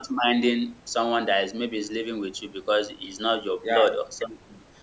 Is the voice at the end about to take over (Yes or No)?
No